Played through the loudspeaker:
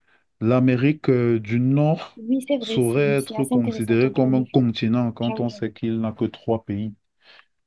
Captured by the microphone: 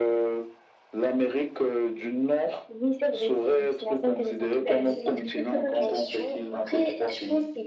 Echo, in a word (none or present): present